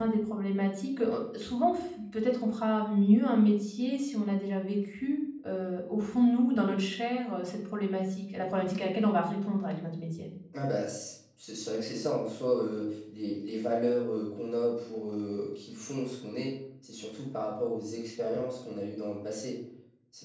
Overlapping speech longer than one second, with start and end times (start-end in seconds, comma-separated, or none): none